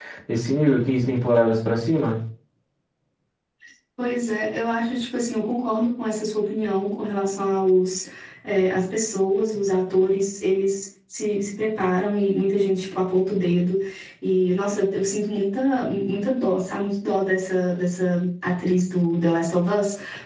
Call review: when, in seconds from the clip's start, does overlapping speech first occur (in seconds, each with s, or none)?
none